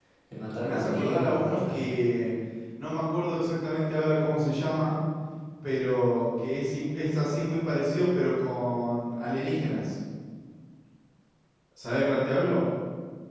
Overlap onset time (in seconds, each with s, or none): 0.6 s